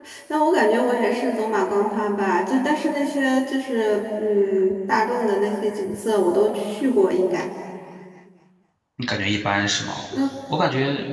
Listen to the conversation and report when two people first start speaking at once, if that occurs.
none

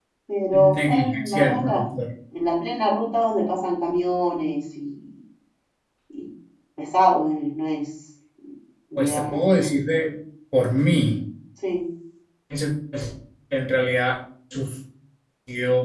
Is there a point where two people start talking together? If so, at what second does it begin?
1 s

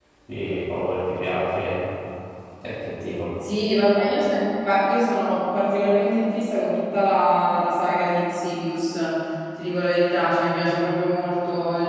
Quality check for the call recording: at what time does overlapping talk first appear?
none

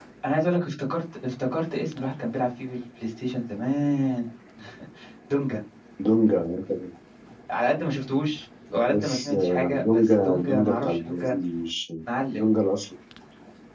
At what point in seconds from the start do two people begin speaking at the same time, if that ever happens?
9 s

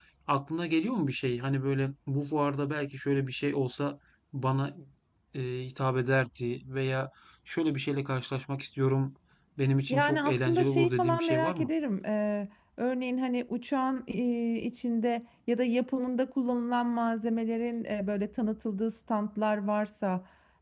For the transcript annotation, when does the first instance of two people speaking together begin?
10 s

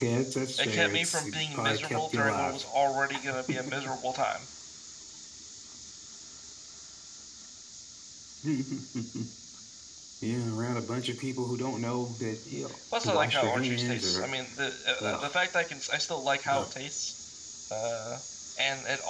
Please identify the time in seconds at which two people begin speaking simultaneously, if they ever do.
1 s

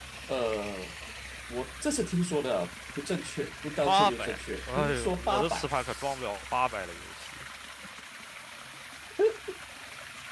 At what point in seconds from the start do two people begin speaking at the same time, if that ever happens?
4 s

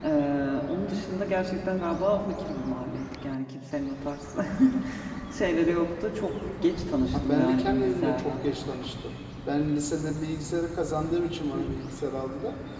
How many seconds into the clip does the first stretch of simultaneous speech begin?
7 s

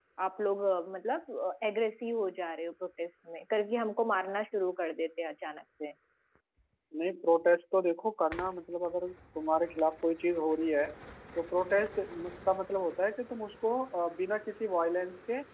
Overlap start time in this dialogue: none

